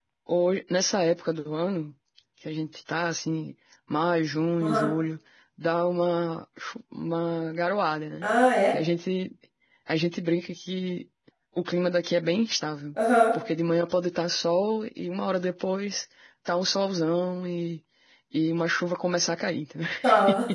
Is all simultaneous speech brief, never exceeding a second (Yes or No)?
Yes